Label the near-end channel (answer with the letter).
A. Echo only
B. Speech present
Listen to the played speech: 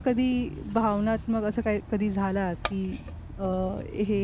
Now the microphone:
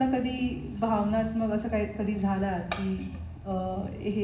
A